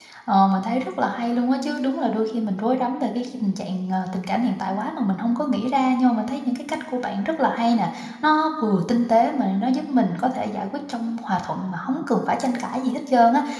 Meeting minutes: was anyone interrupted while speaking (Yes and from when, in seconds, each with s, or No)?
No